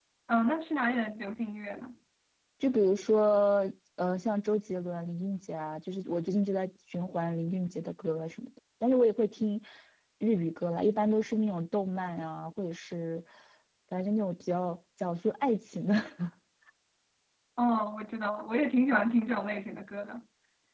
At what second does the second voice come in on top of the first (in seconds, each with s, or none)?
none